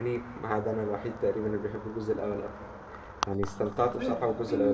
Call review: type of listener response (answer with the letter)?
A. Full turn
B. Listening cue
A